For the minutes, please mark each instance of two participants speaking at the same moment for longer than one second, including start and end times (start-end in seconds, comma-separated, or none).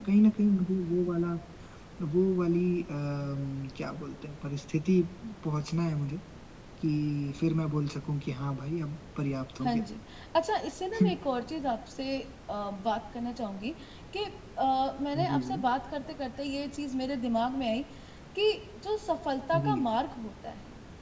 none